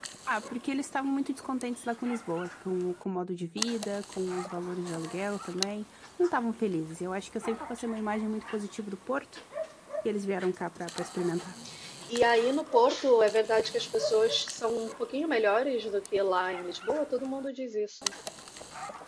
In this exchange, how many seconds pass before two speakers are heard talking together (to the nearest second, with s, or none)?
none